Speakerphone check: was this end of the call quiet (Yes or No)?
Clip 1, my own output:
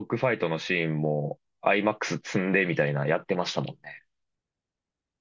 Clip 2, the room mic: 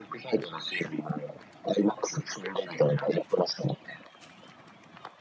Yes